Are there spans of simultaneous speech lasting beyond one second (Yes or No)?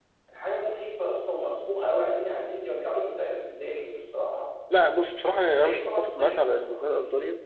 Yes